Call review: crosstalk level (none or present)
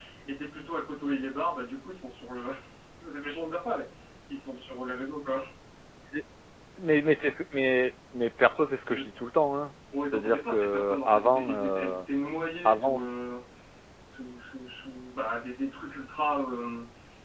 present